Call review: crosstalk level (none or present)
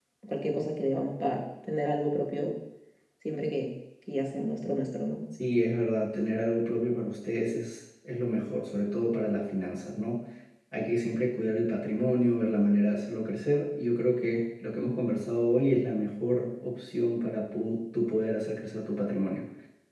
none